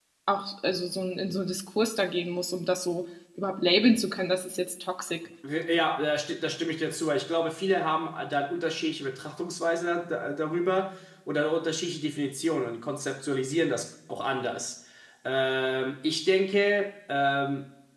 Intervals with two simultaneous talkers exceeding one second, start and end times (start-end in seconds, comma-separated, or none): none